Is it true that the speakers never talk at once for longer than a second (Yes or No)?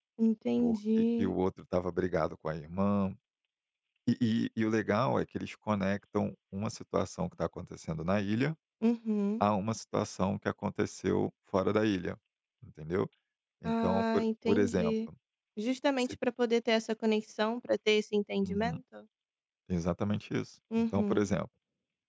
No